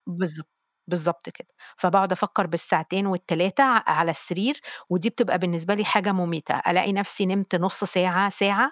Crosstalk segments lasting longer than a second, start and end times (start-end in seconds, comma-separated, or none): none